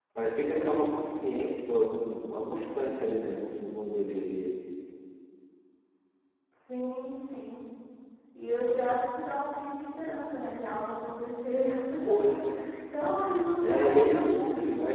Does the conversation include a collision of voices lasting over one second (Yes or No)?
Yes